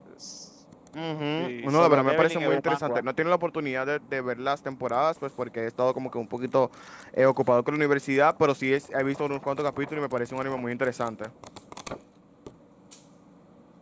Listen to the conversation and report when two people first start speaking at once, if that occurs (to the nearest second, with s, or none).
1 s